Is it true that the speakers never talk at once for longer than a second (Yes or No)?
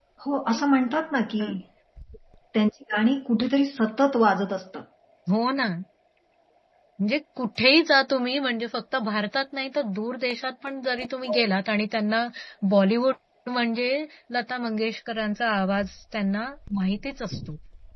Yes